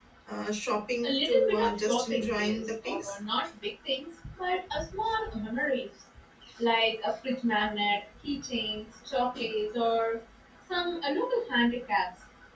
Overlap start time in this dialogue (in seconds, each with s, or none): 1.0 s